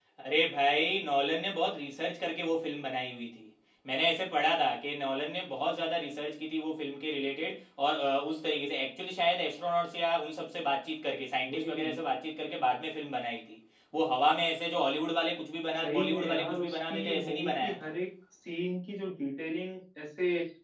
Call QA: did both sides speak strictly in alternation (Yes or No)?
No